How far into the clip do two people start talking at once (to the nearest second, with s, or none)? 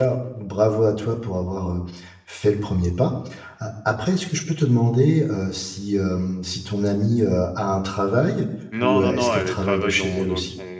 9 s